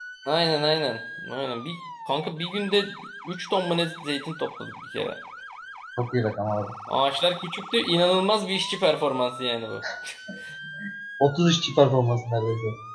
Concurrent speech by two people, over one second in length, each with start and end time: none

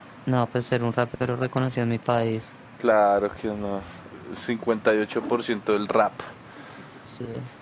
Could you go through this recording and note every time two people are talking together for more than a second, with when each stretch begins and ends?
none

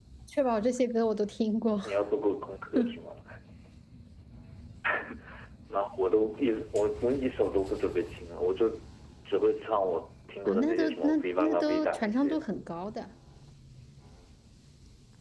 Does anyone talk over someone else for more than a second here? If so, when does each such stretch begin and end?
10.4-12.6

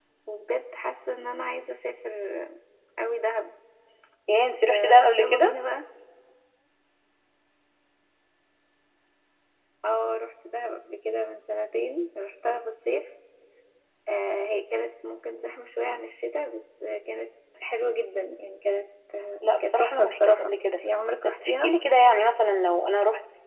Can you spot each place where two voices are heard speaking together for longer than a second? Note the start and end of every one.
4.3-5.5, 19.6-20.8

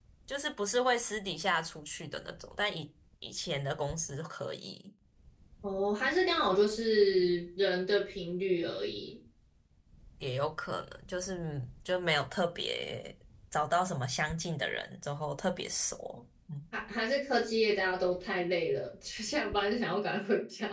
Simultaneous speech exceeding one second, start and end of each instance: none

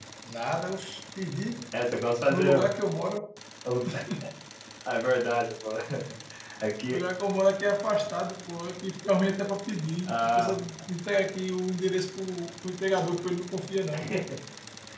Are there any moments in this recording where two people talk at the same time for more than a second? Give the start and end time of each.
none

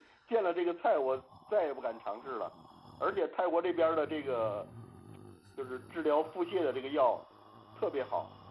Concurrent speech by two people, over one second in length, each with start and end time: none

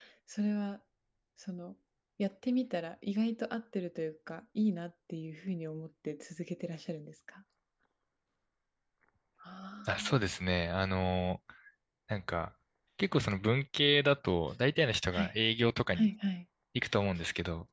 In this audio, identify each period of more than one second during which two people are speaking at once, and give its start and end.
none

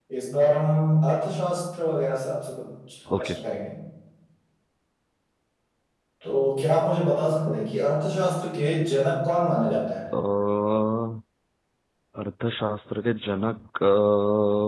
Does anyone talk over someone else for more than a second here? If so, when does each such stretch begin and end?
none

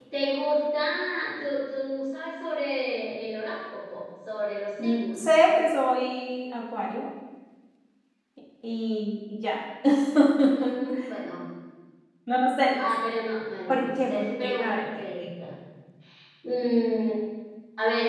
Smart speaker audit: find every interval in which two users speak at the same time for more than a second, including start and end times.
13.7-15.3

